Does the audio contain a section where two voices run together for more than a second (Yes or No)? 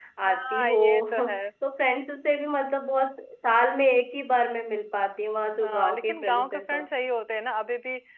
Yes